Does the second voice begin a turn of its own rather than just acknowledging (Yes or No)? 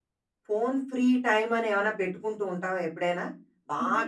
No